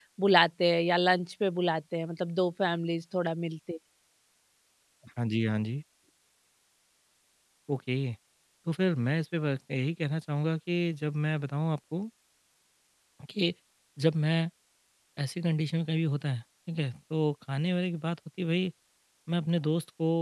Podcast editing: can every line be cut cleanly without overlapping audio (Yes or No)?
Yes